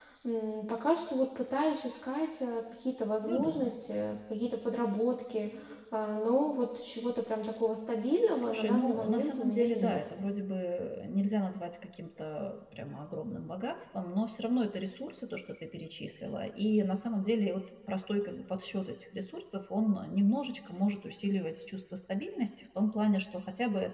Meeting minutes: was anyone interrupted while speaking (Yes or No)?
Yes